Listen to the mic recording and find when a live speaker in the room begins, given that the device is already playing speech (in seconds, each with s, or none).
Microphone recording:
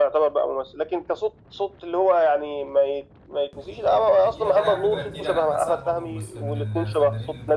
4.2 s